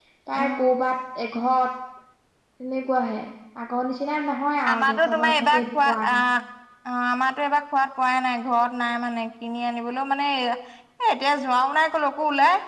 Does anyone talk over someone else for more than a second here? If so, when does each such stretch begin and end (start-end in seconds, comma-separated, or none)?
4.7-6.0